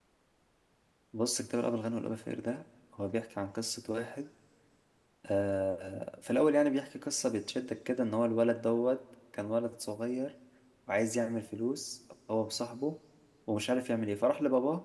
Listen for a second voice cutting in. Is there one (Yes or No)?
No